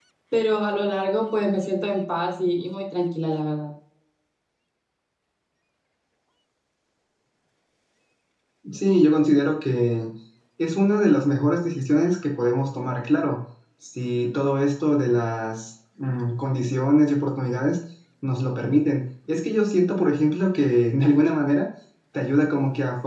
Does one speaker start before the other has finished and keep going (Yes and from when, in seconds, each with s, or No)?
No